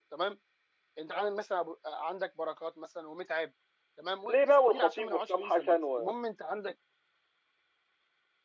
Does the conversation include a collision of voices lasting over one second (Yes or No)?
Yes